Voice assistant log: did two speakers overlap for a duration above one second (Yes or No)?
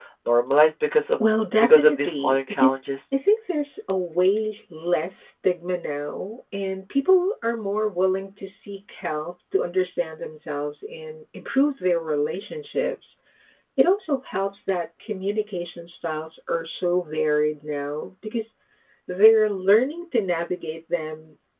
Yes